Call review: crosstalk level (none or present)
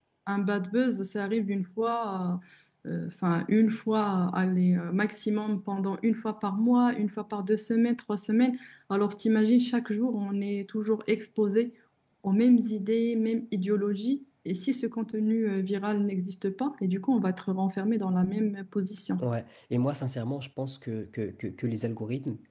none